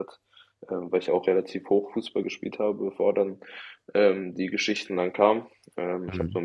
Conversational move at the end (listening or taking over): listening